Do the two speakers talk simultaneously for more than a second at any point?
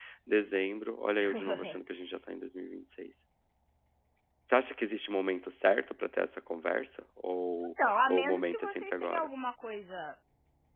Yes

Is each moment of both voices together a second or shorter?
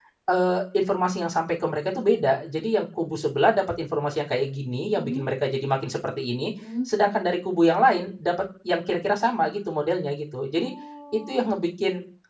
Yes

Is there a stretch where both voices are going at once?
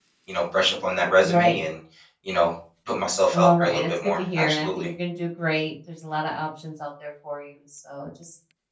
Yes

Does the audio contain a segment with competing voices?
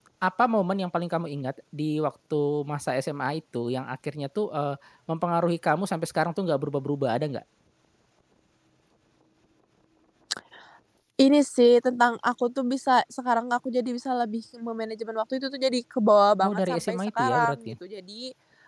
Yes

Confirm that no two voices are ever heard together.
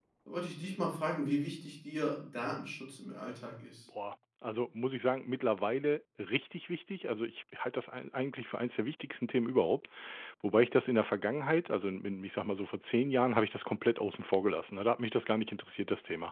Yes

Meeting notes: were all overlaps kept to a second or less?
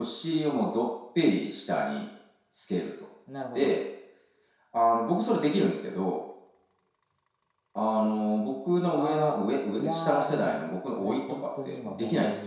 No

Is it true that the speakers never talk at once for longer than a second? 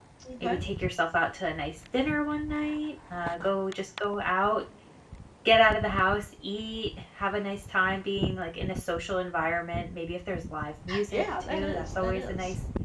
No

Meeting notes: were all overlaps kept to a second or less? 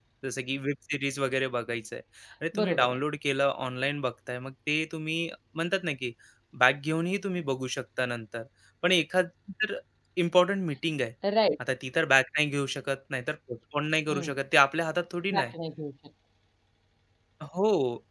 Yes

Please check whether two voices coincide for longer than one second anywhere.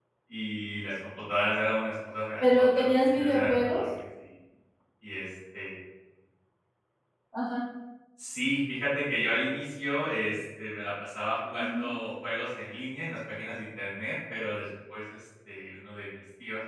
Yes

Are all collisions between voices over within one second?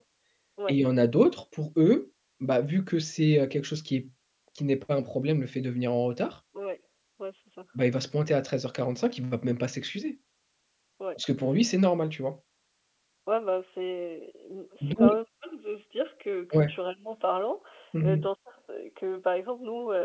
Yes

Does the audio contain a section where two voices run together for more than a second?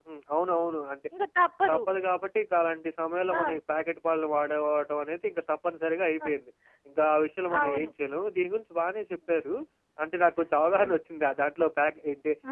No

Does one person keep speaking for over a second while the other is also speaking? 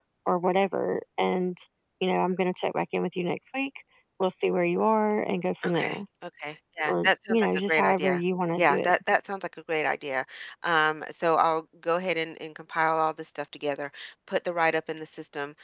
Yes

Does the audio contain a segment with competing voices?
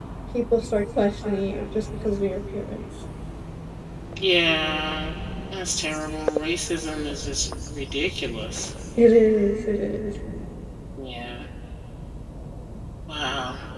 No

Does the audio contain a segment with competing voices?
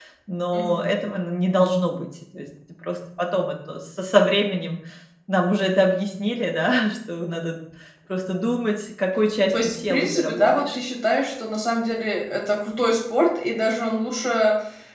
Yes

